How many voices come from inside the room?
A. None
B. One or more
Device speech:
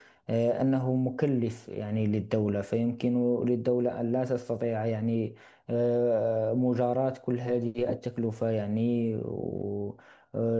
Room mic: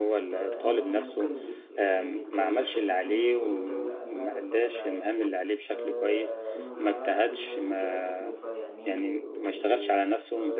B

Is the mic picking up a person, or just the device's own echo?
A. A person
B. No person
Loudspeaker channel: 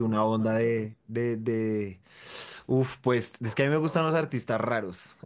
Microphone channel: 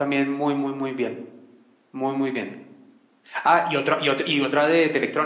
A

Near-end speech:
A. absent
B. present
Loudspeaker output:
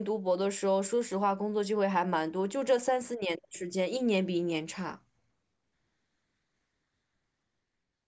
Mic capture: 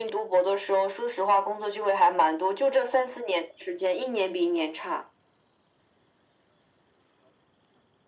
A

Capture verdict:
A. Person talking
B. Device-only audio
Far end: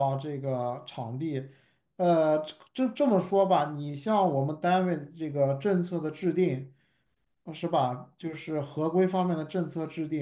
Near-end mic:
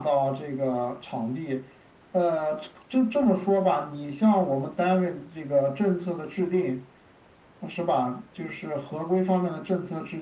B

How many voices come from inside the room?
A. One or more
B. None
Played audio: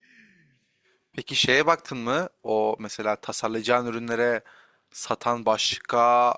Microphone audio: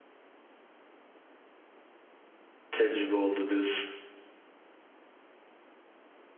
A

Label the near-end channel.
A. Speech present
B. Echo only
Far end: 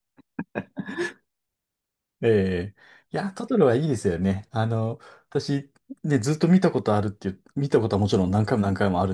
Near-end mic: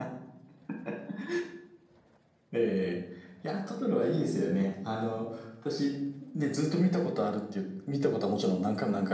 B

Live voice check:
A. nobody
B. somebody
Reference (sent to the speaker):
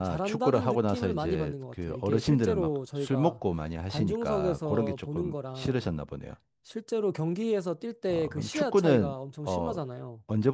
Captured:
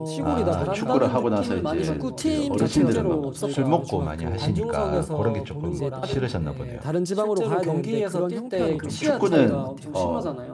B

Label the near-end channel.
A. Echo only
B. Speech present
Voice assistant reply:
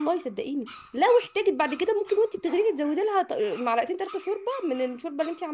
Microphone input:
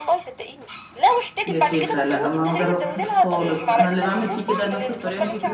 B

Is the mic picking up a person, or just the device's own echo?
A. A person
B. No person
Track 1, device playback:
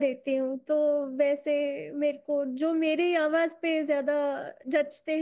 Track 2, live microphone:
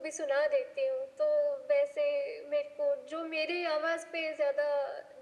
B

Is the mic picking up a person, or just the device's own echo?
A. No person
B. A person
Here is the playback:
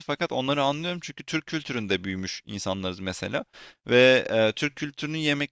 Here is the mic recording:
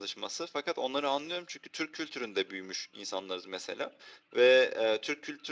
A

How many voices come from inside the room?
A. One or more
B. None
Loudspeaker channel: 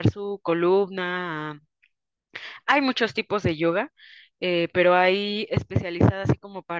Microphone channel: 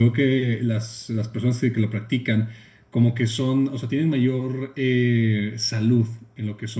A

